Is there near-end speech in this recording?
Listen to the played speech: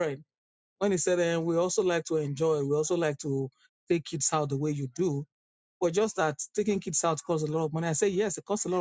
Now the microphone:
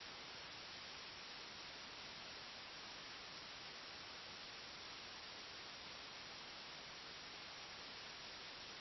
No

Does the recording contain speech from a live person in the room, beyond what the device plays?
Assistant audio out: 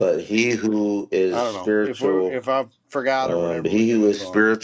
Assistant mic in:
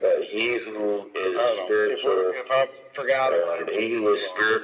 No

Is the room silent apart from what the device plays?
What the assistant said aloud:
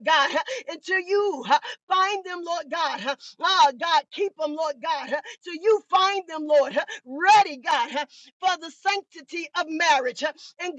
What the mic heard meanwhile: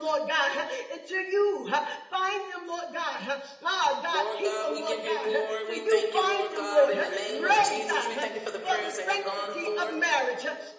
No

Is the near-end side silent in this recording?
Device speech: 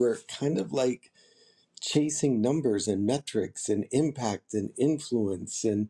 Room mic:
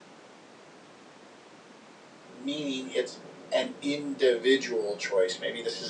No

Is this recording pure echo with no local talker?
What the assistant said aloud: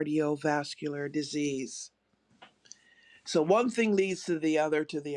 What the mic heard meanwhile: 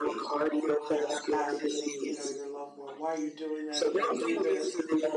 No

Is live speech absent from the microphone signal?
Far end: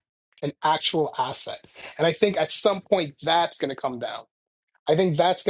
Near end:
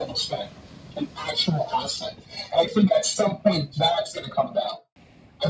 Yes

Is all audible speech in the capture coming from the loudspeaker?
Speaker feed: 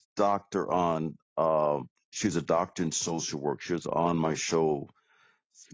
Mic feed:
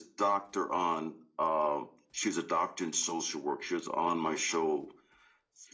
Yes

